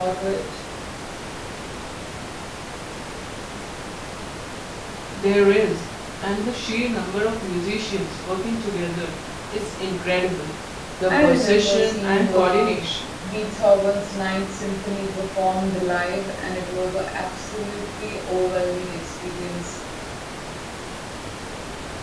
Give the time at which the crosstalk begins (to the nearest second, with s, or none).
11 s